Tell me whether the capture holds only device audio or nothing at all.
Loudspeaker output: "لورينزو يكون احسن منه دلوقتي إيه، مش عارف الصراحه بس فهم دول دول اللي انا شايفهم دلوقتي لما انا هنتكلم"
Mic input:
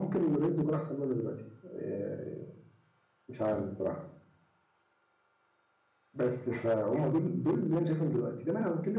Yes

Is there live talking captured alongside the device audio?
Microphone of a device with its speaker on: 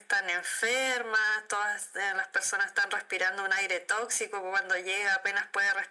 No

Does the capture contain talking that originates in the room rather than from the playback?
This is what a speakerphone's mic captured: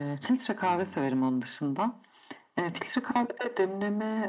Yes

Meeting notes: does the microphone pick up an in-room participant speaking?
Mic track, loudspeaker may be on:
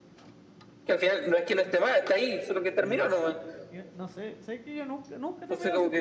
Yes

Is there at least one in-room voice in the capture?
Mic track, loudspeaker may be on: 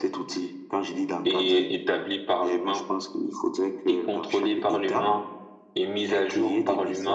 No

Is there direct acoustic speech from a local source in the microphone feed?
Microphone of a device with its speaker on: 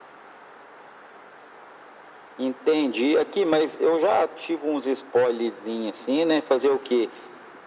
No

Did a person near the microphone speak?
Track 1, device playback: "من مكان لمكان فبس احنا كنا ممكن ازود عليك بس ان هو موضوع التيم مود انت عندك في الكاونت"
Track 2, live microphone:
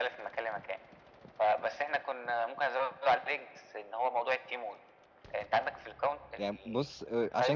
Yes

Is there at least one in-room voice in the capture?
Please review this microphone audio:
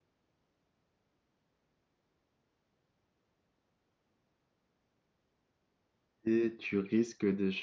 Yes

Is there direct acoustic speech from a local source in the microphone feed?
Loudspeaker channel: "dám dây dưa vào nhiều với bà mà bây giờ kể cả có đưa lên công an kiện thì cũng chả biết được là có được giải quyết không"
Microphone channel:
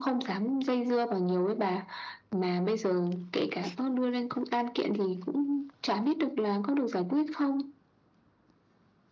No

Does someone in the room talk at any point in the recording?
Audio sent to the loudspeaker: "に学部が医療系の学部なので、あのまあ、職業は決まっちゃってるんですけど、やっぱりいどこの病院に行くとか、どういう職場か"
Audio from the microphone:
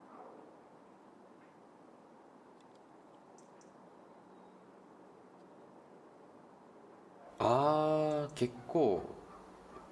Yes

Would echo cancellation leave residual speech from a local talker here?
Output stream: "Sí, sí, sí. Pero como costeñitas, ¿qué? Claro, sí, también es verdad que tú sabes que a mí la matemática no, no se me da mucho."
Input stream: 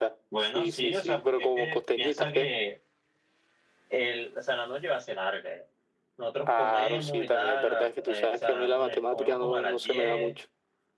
Yes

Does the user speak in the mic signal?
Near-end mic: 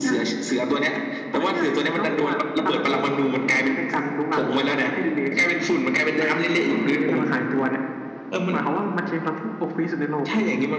No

